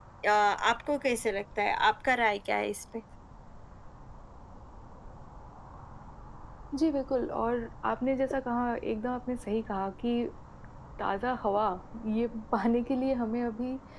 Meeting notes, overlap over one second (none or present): none